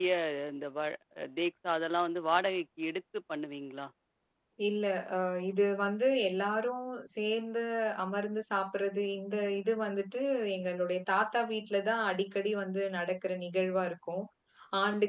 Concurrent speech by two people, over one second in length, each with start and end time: none

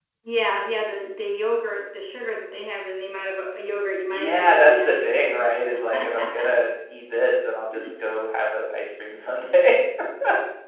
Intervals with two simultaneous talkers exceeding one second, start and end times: 4.0-5.5

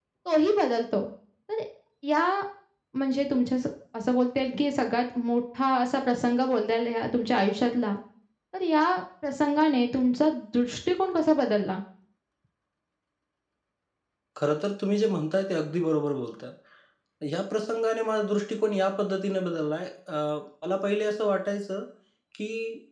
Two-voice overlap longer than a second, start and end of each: none

